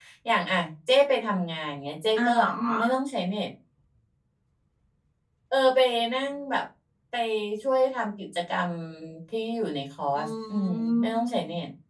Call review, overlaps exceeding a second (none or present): present